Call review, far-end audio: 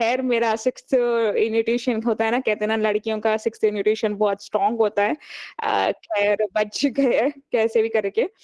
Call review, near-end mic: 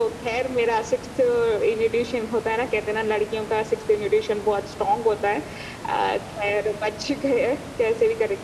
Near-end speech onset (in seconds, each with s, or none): none